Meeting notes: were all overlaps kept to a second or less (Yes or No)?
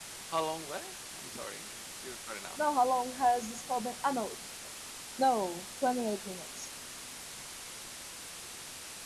Yes